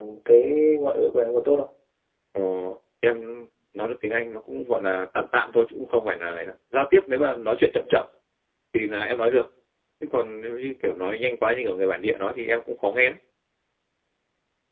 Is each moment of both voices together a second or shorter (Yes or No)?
Yes